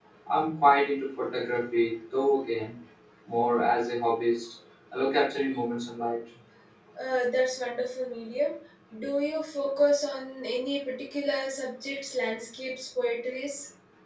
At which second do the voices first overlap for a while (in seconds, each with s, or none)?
none